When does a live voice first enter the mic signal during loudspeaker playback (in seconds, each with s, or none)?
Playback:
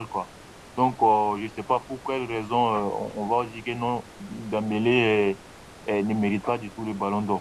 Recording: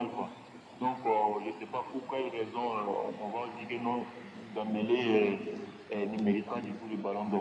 none